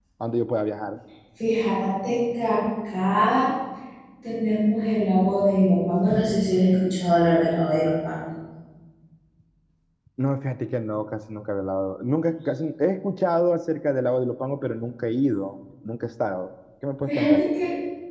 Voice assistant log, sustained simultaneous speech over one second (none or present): none